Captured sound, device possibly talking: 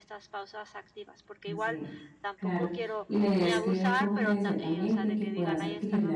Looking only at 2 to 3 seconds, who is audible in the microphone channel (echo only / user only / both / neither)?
both